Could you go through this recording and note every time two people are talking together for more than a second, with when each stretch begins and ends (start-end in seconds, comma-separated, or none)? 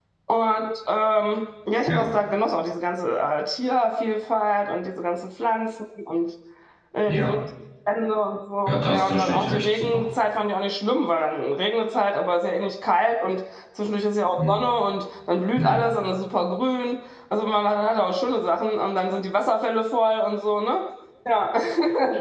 8.7-10.1